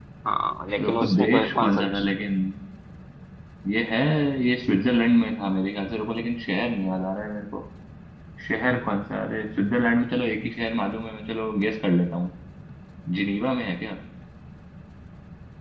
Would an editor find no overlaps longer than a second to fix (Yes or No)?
No